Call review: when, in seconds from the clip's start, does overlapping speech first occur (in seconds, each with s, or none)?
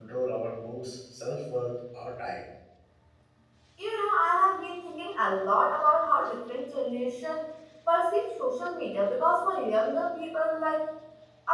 none